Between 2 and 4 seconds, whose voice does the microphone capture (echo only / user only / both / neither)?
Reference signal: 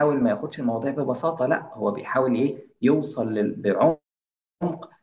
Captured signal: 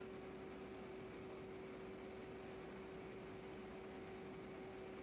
neither